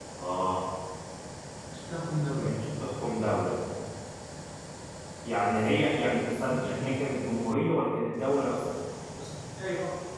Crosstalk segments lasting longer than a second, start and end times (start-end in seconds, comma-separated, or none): none